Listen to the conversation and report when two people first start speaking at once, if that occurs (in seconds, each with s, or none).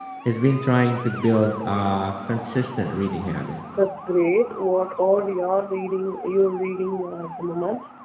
none